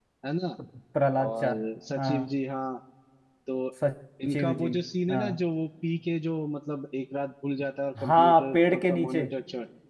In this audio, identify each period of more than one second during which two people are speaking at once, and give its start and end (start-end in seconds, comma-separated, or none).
8.0-9.2